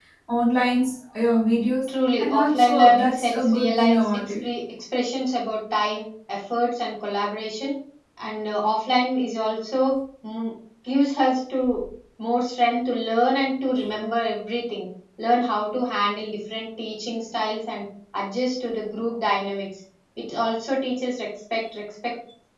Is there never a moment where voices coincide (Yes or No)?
No